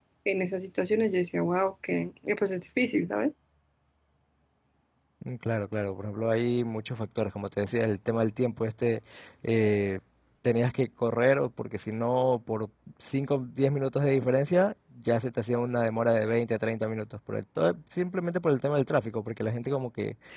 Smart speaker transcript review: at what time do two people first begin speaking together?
none

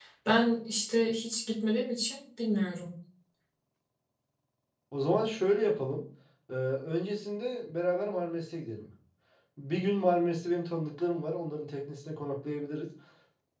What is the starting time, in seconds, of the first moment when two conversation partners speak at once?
none

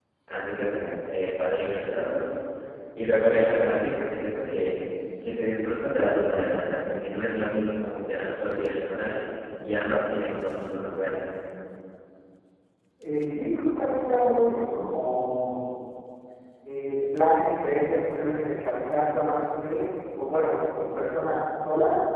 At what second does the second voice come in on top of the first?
none

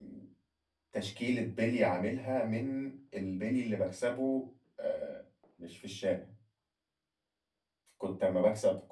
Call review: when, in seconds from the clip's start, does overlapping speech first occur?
none

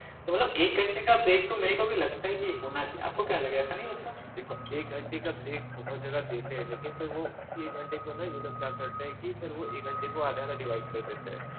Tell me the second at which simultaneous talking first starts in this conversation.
none

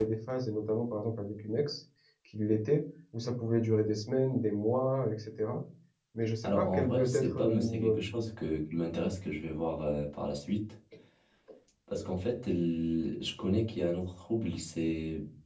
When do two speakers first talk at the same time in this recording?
6 s

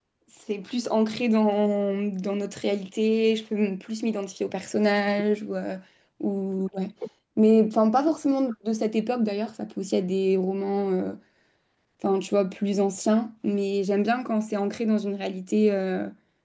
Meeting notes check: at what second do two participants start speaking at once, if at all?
none

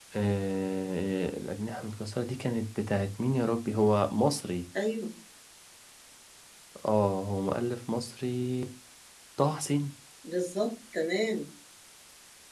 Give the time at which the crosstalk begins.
none

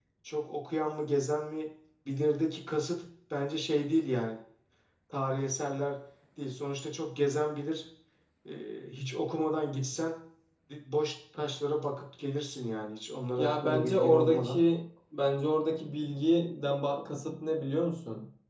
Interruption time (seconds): 13 s

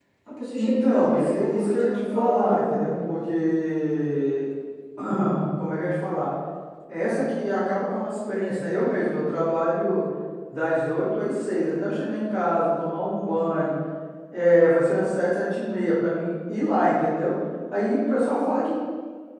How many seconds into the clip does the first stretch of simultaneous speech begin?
1 s

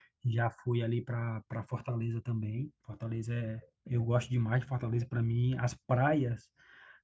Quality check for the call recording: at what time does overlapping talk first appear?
none

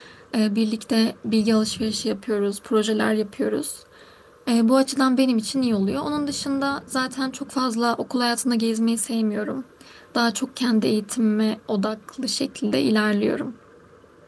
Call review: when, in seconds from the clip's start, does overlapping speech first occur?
none

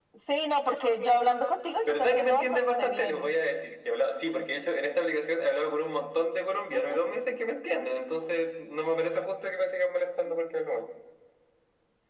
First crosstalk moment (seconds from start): 2 s

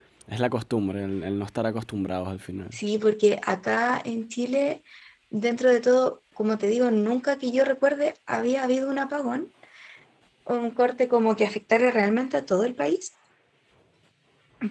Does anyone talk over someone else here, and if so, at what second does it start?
none

